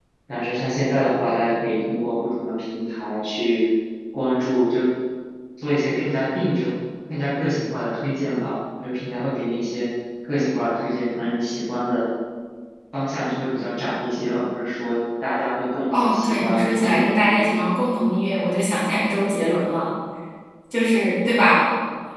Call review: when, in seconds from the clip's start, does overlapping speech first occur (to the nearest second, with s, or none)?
16 s